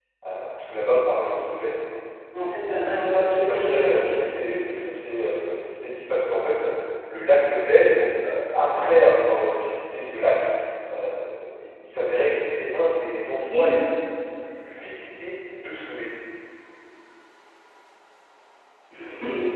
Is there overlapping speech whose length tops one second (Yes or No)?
Yes